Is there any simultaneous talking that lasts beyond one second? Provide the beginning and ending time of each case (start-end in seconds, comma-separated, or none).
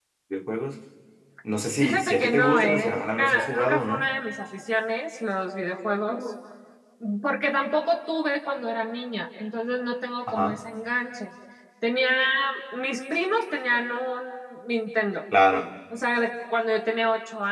1.8-4.1